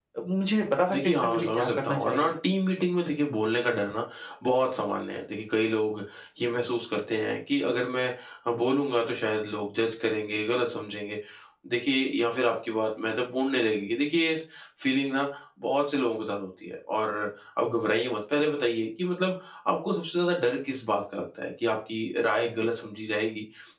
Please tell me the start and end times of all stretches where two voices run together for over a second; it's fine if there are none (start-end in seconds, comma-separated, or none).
0.9-2.3